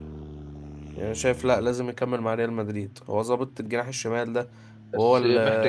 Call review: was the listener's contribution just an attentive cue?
No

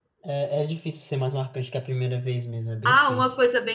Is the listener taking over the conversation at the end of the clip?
Yes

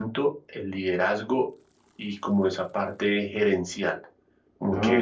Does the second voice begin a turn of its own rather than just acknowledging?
No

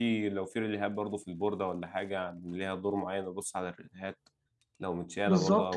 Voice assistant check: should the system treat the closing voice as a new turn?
Yes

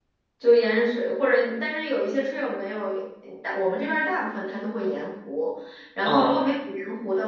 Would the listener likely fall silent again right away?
Yes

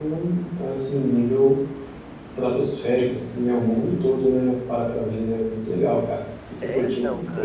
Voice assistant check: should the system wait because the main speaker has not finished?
No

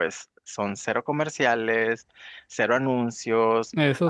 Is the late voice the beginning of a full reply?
No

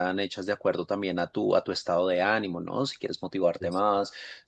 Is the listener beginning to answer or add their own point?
No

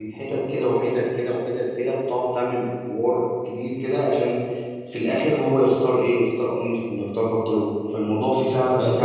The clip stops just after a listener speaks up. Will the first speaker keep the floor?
No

